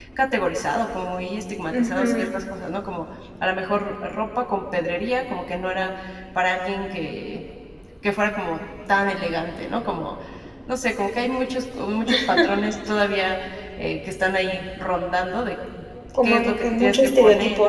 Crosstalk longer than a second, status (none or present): present